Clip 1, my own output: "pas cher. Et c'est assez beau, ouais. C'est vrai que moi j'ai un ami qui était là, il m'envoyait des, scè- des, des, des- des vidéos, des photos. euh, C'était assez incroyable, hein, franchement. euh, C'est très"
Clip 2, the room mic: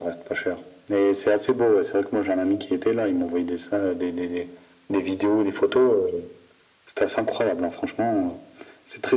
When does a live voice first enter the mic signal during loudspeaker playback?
none

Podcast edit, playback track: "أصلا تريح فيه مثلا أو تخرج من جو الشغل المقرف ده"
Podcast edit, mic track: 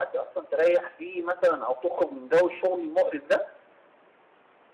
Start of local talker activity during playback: none

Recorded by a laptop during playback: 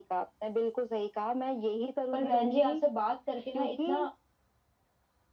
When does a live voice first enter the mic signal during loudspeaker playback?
2.1 s

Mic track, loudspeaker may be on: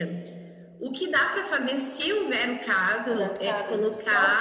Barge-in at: 3.0 s

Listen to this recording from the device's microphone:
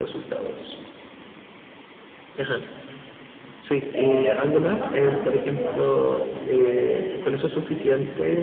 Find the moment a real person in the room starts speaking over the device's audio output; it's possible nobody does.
3.9 s

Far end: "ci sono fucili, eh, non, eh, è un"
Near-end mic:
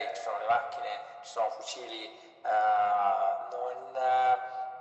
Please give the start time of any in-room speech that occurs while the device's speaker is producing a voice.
none

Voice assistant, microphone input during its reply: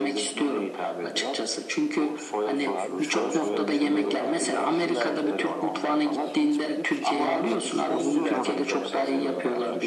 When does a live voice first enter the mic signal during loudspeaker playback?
2.6 s

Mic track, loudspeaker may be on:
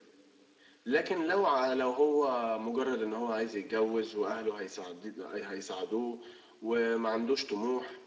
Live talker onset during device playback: none

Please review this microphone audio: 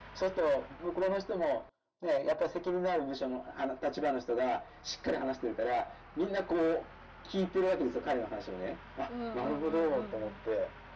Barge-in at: 9.0 s

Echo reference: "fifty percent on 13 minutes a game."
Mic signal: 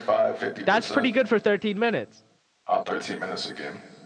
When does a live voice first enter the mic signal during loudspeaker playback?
0.6 s

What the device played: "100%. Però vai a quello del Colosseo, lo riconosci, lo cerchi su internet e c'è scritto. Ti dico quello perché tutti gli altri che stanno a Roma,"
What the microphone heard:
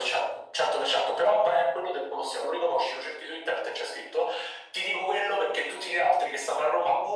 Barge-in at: none

